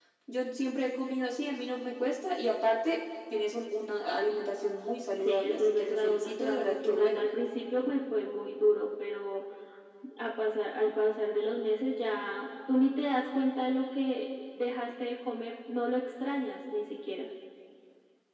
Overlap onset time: 5 s

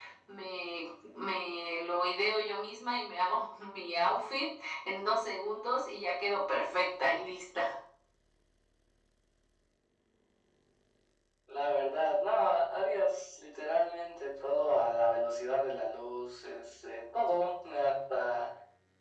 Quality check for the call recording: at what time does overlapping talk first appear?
none

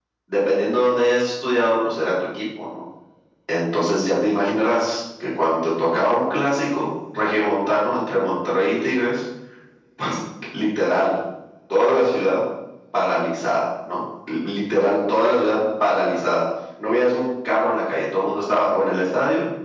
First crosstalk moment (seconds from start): none

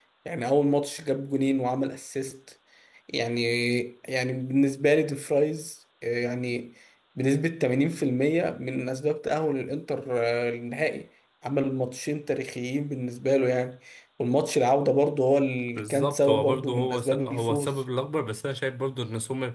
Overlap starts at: 16 s

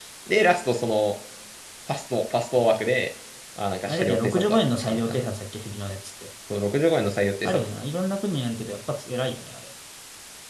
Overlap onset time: 4 s

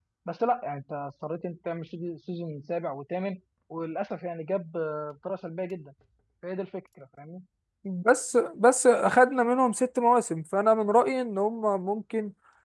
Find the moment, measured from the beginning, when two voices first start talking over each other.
none

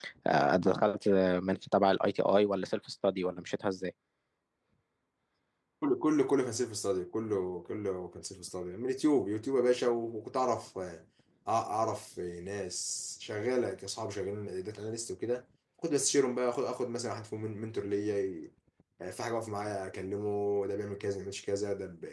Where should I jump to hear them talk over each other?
none

